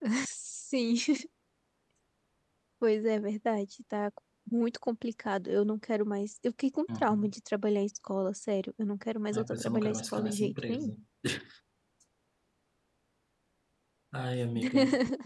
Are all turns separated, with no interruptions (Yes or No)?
No